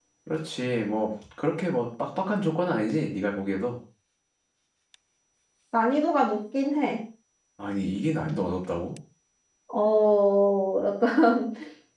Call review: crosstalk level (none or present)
none